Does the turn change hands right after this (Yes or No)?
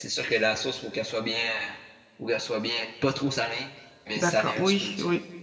Yes